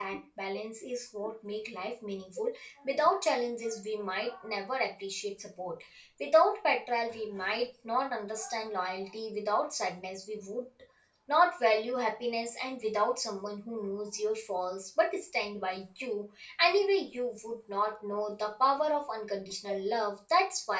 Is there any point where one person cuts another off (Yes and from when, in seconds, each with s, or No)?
No